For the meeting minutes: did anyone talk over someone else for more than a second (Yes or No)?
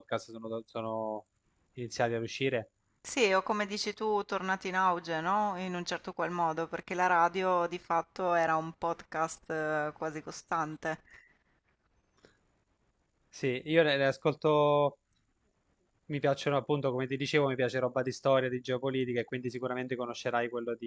No